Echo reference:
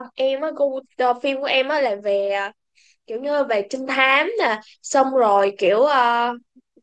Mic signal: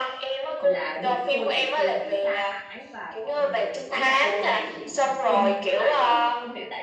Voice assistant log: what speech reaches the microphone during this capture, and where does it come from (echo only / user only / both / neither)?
both